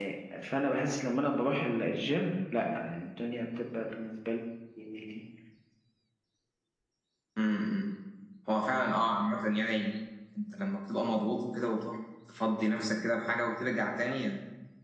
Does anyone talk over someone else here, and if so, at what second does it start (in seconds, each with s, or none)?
none